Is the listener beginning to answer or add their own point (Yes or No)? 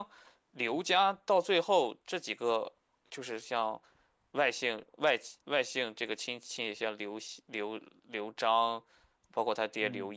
No